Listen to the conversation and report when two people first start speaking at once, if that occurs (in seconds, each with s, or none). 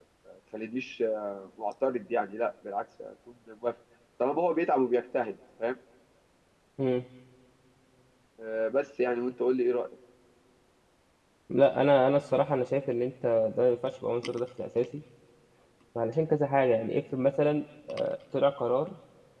none